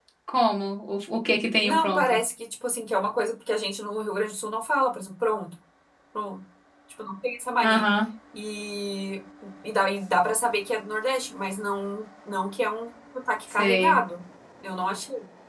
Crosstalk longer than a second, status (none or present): none